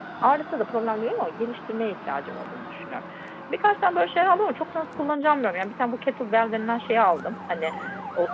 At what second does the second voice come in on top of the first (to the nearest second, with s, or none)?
none